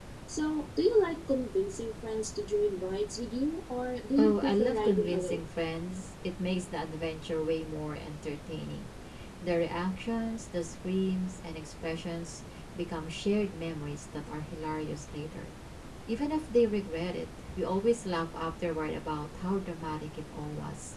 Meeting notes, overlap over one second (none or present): present